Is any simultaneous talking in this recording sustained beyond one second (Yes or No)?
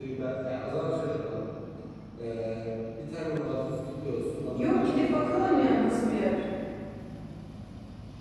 Yes